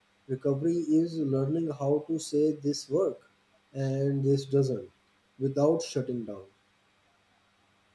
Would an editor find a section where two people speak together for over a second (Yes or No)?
No